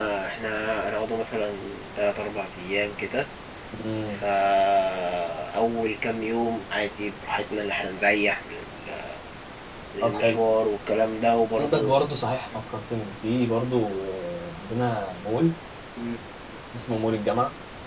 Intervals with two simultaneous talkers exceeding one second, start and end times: none

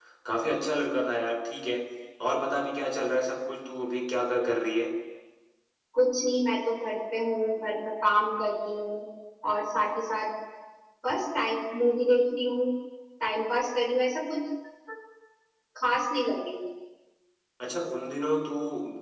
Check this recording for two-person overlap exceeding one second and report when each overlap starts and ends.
none

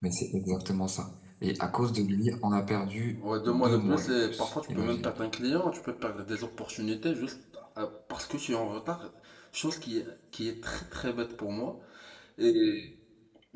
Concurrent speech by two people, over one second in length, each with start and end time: 3.5-5.1

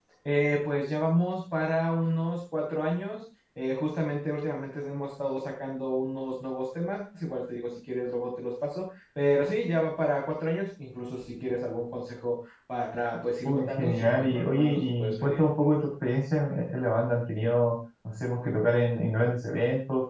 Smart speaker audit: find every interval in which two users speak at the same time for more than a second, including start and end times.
13.4-15.4

